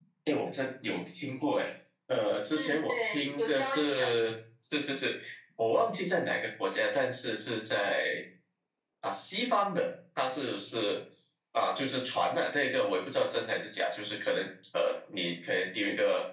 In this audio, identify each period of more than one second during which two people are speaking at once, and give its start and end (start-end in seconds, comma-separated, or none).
2.5-4.1